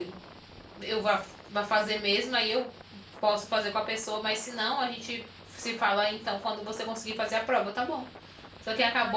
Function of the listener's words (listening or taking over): listening